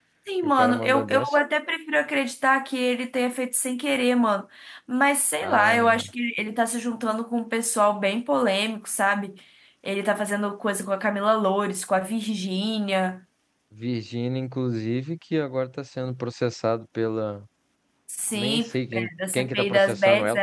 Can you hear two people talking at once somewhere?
Yes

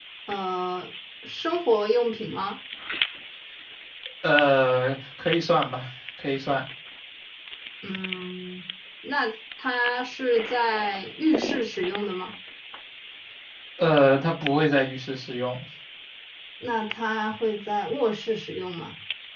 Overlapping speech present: No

